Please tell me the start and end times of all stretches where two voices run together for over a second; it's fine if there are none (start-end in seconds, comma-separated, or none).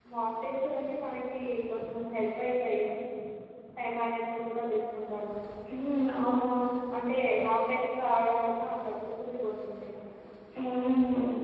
none